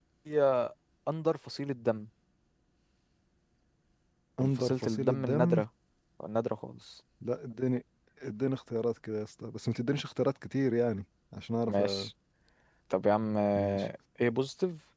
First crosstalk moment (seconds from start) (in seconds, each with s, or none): 4.4 s